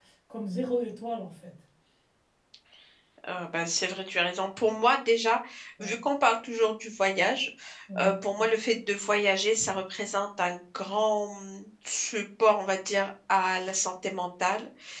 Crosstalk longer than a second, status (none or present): none